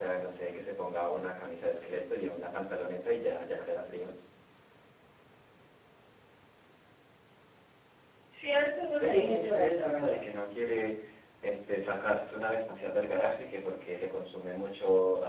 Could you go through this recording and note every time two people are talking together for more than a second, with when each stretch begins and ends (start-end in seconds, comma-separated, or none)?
9.0-10.2